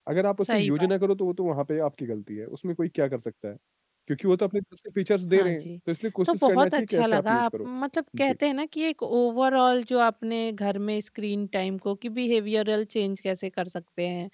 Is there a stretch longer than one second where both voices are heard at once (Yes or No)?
Yes